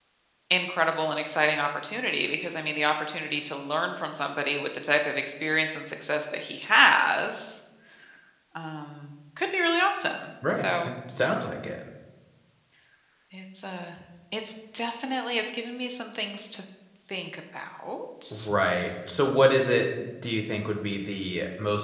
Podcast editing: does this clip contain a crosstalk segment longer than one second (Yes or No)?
No